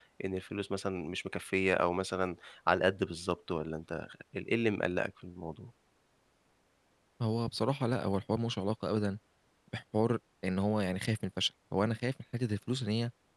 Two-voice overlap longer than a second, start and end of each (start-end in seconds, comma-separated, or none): none